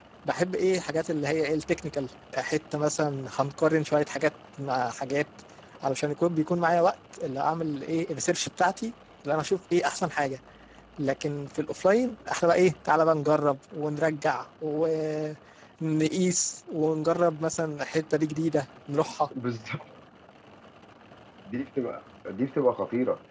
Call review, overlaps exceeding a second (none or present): none